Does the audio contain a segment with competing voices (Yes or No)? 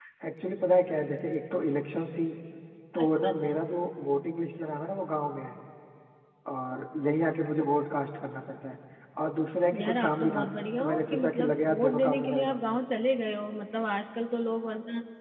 Yes